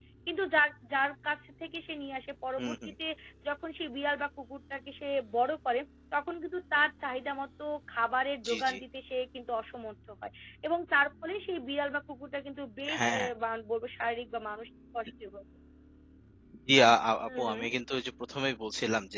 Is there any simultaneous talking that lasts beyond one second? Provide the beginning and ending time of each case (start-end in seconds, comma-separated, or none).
none